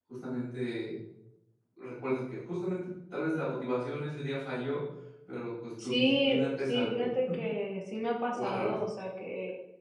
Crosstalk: present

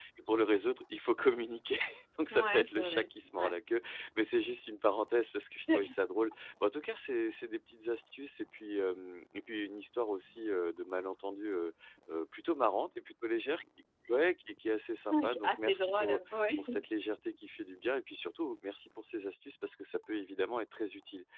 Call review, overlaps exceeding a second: present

